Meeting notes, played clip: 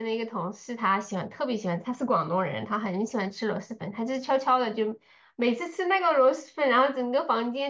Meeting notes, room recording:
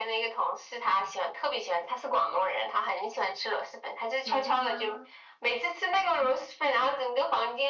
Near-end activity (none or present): present